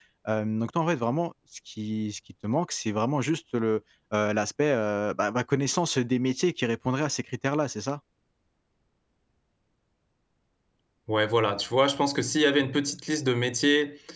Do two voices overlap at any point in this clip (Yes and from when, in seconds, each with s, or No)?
No